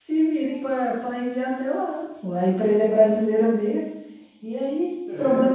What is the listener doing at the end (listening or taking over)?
listening